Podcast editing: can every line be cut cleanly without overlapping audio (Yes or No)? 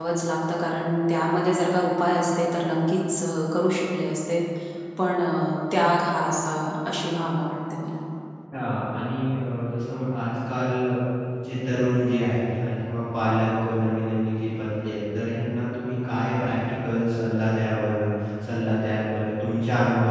Yes